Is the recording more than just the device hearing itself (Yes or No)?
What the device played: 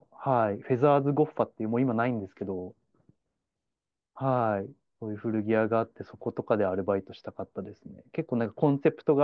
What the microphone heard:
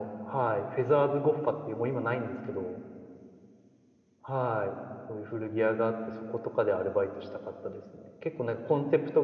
No